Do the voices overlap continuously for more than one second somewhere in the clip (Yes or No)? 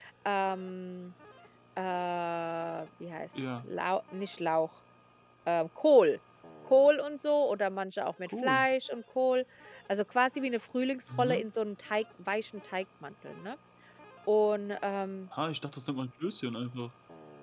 No